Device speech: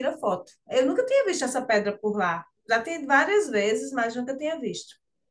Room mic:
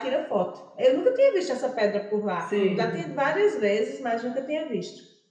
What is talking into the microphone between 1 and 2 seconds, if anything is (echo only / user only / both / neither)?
echo only